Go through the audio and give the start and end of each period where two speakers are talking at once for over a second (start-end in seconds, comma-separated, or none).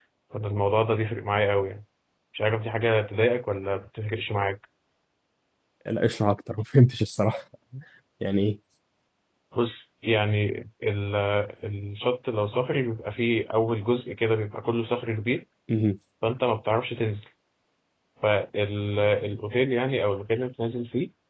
none